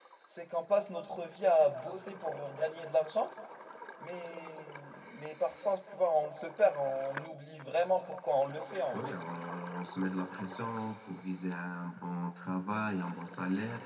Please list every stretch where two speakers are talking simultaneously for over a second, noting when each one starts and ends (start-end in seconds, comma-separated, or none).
none